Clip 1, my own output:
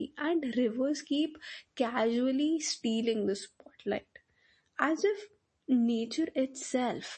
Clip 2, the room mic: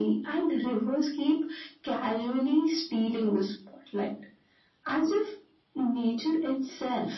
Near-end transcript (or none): none